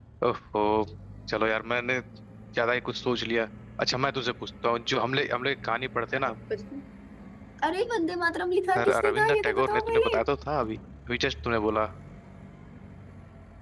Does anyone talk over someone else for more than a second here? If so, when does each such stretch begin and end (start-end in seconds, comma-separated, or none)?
8.8-10.2